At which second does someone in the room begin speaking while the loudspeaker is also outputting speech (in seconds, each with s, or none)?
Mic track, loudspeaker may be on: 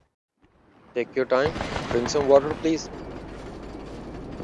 0.9 s